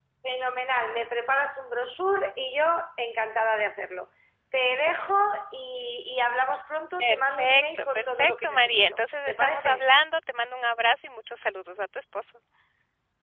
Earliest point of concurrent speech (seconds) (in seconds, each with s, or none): 7.0 s